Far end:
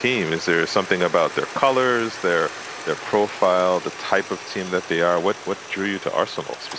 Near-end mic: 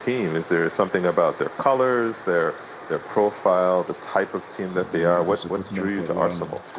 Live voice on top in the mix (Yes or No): No